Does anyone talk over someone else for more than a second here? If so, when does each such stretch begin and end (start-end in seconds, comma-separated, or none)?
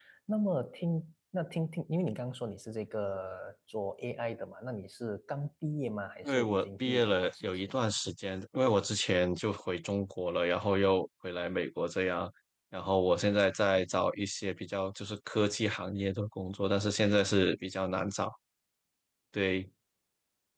6.2-7.7